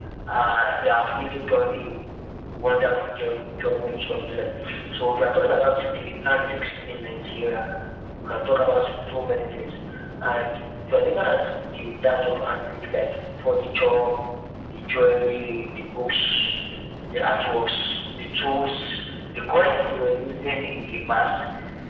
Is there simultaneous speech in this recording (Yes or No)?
No